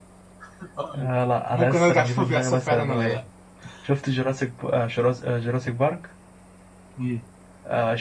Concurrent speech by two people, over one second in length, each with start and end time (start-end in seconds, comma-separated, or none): 1.5-3.2